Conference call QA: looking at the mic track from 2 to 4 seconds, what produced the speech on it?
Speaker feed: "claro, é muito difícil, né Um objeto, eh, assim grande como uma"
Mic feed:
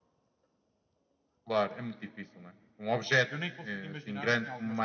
both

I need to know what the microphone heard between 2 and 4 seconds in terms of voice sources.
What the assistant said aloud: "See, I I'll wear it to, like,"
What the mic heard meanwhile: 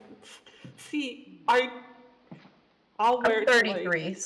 both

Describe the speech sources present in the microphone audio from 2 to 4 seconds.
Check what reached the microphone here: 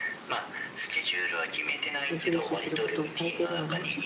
both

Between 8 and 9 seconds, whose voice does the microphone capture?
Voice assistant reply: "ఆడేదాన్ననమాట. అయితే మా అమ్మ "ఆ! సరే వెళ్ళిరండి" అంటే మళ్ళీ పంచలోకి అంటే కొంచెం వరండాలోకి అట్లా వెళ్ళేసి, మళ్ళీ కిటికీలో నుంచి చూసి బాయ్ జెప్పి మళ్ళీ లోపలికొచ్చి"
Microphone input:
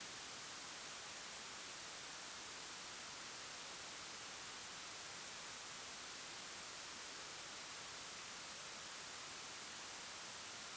neither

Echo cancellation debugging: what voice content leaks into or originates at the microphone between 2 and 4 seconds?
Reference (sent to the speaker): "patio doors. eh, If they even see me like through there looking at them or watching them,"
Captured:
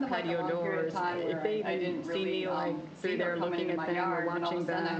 both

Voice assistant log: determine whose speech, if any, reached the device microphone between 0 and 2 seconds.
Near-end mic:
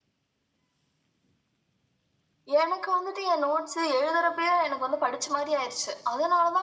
neither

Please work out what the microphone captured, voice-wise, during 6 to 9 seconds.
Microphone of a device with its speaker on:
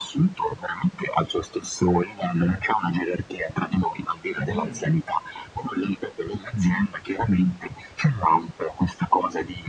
echo only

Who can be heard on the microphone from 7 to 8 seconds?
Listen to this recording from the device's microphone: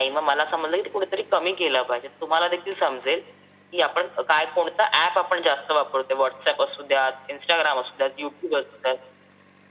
echo only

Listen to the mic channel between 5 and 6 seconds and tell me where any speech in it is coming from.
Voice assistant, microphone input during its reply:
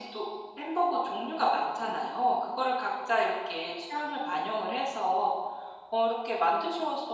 echo only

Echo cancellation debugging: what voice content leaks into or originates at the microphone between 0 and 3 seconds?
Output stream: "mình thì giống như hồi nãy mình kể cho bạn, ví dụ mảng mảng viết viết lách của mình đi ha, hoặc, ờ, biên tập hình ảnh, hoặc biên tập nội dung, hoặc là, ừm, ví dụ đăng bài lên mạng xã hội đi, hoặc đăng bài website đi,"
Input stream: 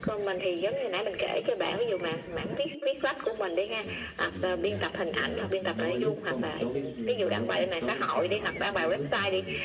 echo only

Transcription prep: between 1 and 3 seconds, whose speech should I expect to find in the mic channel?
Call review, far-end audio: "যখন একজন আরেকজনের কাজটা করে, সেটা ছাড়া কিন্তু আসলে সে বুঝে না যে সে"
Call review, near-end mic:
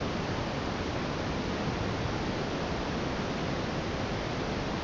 neither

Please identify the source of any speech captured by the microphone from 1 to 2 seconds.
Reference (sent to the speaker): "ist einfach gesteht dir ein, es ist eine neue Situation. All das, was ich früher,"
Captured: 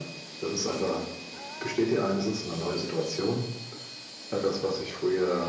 echo only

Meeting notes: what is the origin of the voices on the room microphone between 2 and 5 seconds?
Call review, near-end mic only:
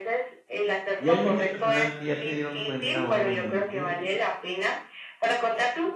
both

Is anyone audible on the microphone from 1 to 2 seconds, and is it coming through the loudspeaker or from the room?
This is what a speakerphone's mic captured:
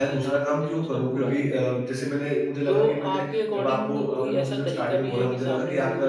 both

